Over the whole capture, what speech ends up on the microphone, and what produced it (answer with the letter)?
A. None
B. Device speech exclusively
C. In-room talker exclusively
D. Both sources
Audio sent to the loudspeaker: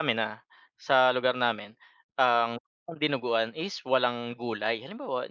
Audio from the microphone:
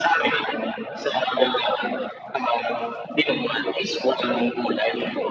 B